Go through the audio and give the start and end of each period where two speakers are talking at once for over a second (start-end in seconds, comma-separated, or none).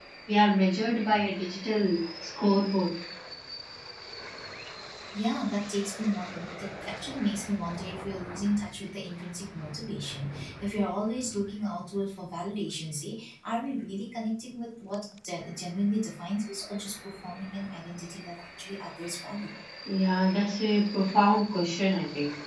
none